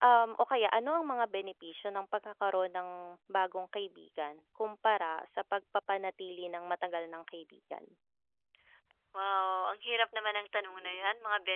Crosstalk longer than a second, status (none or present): none